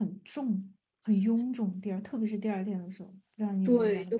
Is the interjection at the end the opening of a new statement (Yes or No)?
Yes